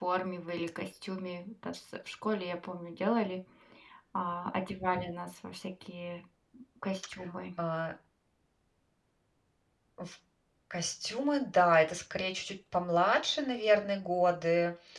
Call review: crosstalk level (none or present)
none